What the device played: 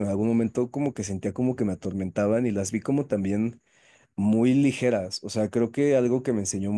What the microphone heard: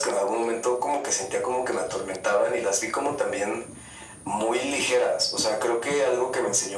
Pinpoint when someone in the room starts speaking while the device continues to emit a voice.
none

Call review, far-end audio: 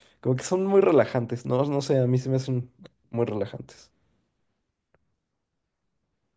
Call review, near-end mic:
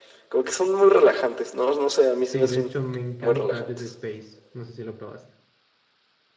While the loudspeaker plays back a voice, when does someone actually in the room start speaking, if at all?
2.2 s

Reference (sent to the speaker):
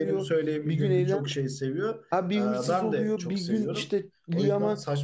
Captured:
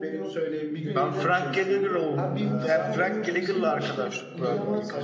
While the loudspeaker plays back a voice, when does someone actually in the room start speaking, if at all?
0.9 s

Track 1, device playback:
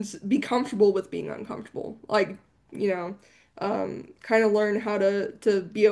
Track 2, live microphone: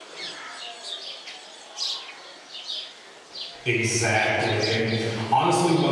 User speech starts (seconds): 3.6 s

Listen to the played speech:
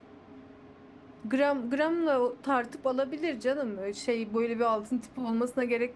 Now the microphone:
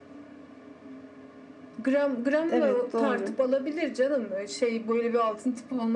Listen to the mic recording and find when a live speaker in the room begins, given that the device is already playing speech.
2.5 s

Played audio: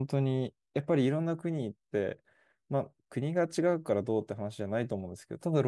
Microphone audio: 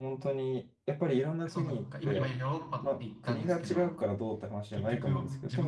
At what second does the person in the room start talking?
1.5 s

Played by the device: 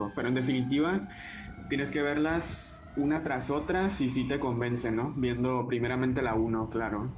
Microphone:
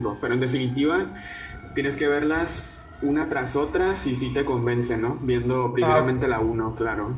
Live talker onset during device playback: 5.8 s

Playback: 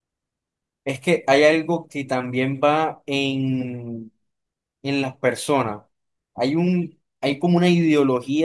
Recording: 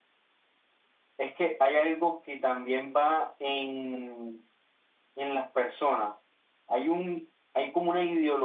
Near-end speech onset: none

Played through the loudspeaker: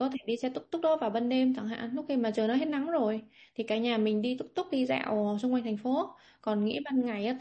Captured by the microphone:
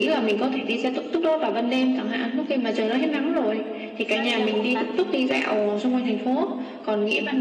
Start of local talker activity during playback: 4.1 s

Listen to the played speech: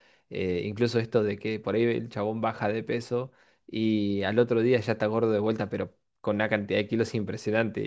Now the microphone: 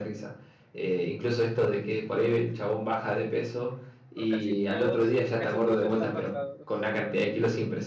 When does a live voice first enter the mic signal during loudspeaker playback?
4.1 s

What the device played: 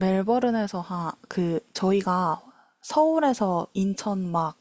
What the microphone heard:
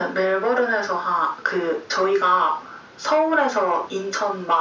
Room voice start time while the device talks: none

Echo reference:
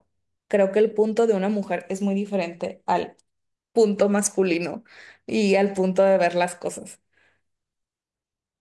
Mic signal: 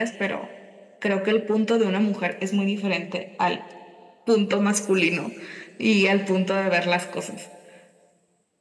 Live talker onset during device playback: none

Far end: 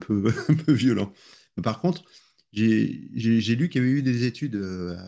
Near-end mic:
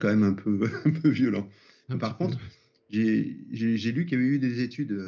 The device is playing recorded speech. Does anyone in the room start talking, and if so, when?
1.9 s

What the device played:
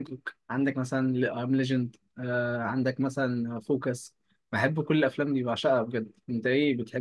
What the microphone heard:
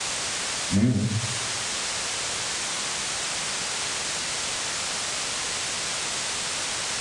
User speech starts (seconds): 0.8 s

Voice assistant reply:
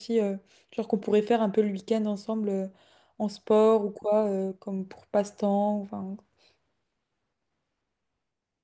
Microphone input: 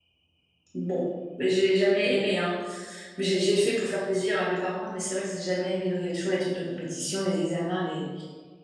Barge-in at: 0.7 s

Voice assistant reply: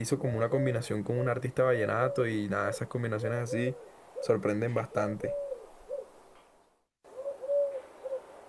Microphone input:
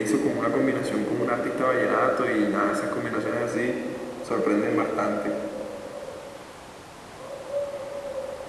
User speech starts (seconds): none

